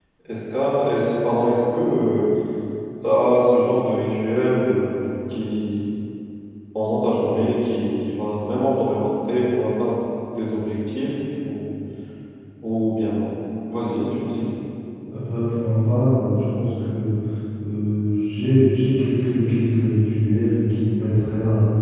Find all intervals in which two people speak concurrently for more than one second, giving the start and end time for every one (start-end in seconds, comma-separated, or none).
none